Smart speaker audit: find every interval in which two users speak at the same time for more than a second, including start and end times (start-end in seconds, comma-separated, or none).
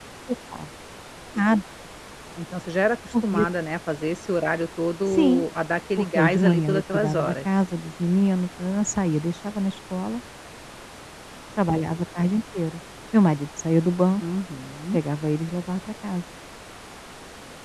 6.0-7.3